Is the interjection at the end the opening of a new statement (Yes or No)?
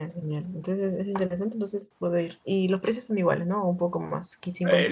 Yes